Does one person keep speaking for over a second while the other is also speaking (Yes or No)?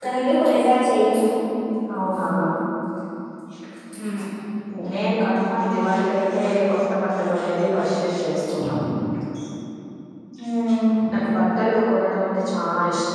No